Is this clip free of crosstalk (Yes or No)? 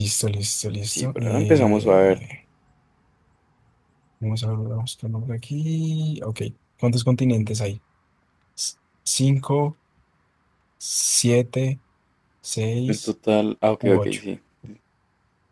No